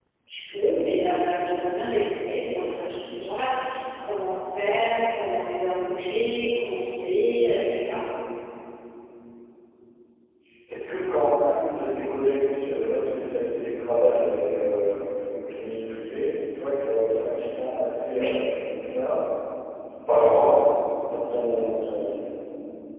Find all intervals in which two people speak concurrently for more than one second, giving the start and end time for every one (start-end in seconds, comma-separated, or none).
none